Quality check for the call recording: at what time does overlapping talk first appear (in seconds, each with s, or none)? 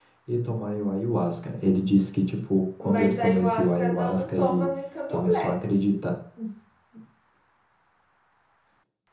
2.8 s